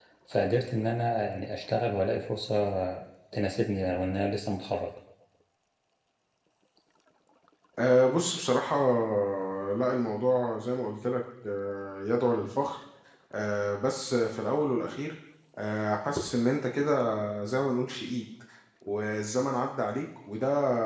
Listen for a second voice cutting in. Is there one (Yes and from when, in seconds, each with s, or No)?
No